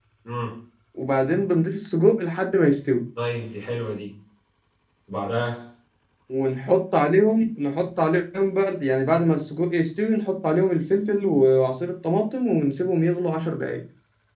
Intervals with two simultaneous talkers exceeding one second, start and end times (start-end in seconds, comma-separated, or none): none